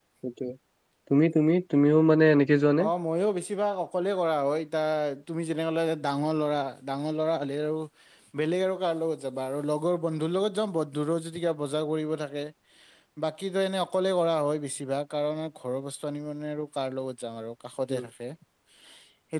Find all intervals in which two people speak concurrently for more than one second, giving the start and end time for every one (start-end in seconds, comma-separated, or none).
none